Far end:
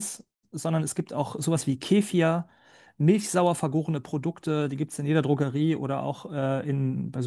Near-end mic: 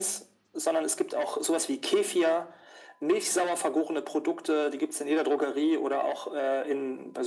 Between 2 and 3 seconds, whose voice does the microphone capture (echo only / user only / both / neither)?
echo only